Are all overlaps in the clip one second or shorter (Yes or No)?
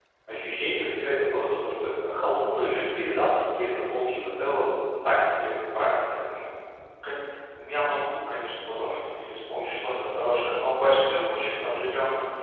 Yes